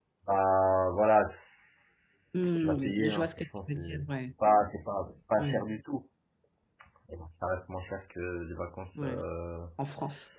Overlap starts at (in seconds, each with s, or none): 2.6 s